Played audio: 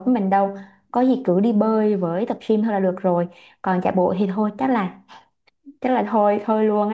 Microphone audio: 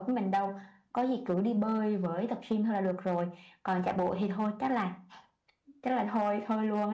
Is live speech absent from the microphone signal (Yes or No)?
Yes